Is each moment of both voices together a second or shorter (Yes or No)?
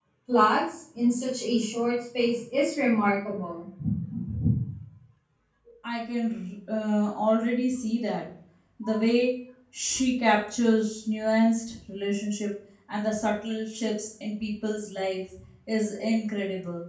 Yes